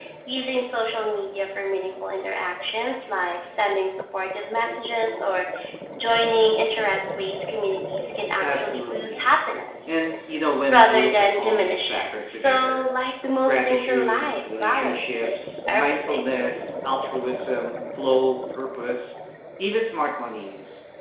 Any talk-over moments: Yes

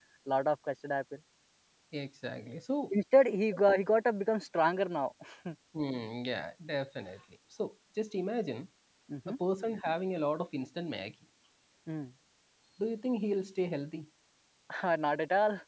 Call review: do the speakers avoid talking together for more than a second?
Yes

